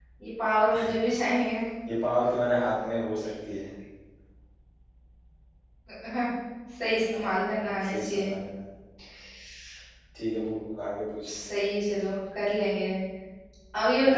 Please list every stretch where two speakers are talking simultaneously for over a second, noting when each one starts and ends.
7.1-8.3

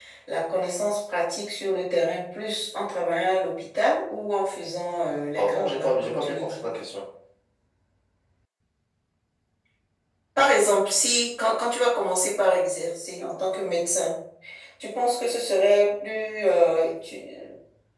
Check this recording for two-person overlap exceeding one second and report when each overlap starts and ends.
5.3-6.7

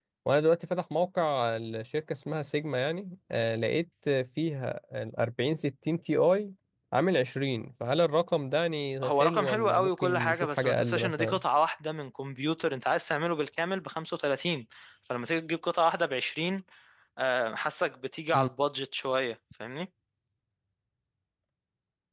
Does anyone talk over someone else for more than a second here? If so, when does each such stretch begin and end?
9.0-11.4

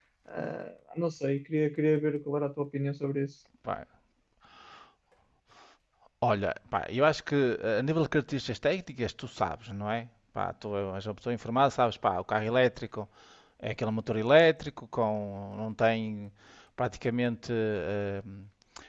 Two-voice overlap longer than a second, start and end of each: none

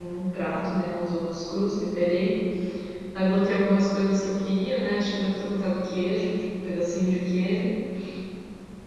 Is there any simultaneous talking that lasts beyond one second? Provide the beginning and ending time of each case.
none

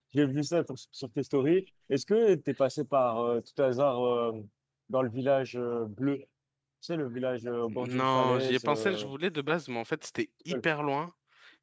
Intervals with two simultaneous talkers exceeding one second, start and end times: 7.7-9.1

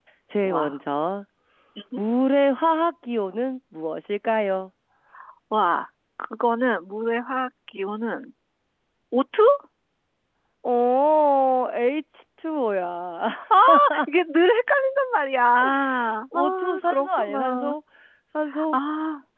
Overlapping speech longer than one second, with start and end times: 16.3-17.7

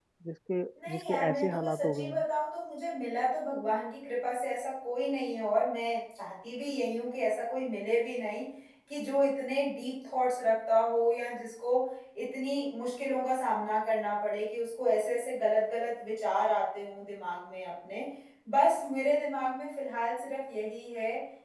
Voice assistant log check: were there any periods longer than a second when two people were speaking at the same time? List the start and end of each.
0.9-2.2

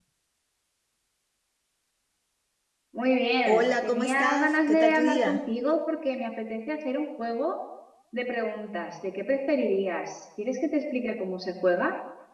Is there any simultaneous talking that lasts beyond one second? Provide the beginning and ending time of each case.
3.5-5.4

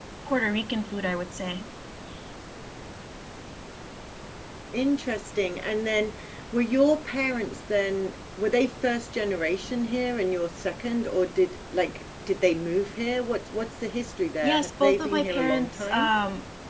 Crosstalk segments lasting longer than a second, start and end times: 14.4-16.1

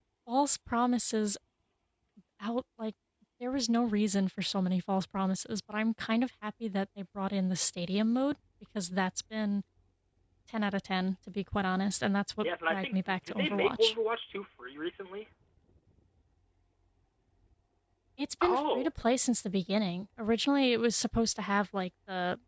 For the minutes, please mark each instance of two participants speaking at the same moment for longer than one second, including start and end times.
12.4-13.9

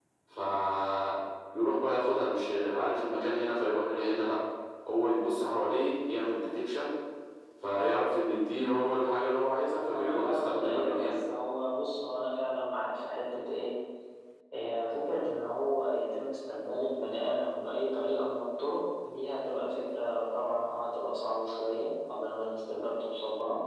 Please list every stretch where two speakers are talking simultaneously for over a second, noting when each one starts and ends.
9.9-11.2

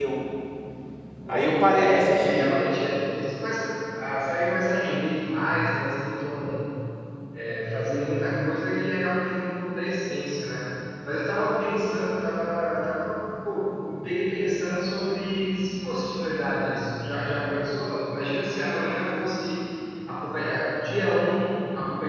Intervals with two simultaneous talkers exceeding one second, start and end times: 1.3-2.5

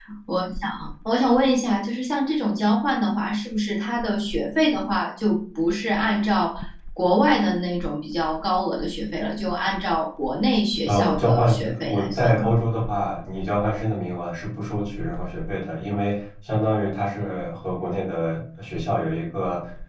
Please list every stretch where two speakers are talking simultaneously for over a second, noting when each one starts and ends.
10.8-12.4

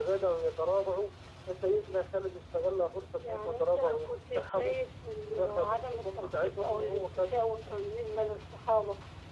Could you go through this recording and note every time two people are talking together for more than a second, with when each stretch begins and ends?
3.2-4.8, 5.3-7.3

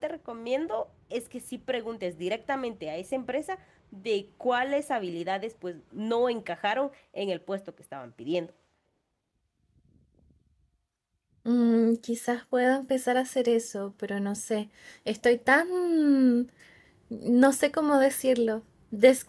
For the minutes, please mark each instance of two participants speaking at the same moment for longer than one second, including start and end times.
none

